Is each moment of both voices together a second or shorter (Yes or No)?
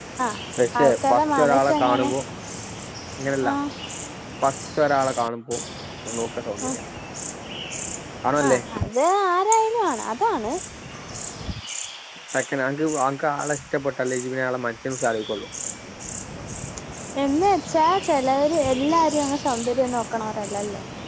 No